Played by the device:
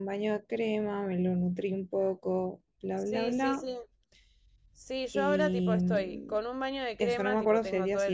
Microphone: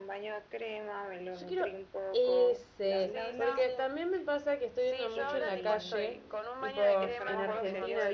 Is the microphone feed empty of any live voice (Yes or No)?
No